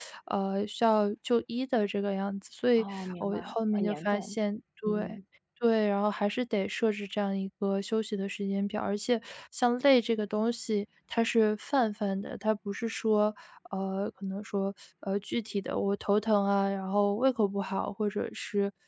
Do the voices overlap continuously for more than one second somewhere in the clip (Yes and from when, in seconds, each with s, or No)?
Yes, from 2.8 s